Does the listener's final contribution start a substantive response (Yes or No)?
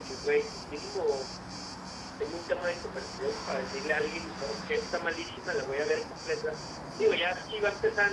No